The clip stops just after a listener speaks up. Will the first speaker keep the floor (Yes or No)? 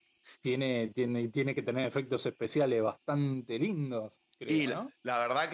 No